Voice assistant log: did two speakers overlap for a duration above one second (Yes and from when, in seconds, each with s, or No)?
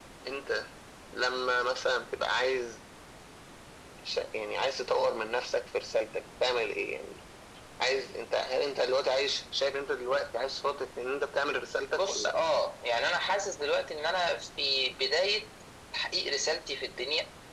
No